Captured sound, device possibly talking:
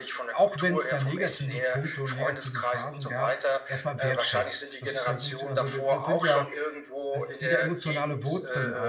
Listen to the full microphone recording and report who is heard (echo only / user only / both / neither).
both